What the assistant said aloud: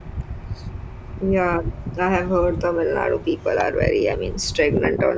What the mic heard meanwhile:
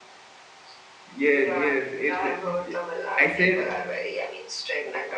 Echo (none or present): present